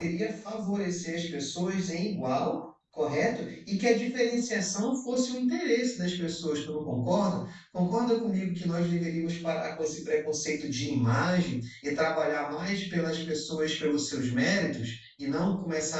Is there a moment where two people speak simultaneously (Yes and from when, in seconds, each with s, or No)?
No